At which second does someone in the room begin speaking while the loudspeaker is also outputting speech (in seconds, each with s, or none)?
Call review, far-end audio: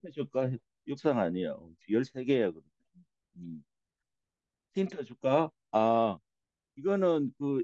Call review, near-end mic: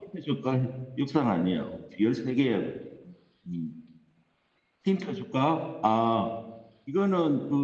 none